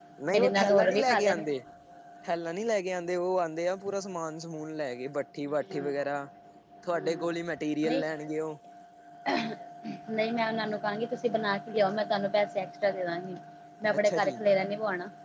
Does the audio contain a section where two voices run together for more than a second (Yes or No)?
Yes